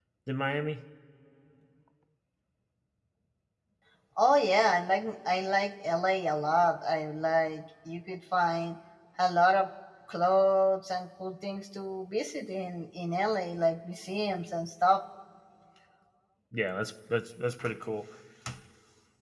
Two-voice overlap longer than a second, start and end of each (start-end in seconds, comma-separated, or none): none